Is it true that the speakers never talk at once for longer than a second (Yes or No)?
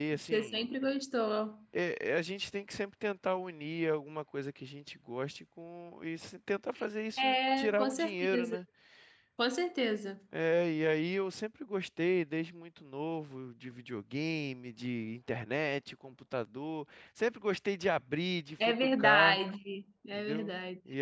No